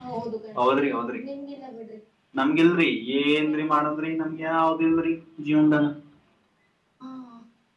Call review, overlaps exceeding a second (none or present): none